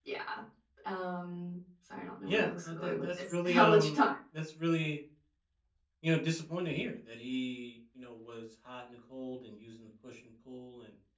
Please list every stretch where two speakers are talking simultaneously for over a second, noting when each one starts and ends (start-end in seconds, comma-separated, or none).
2.3-4.0